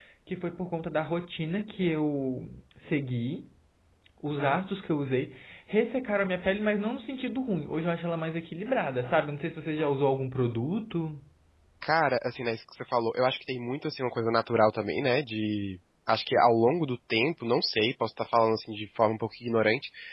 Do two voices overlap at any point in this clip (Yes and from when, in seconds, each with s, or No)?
No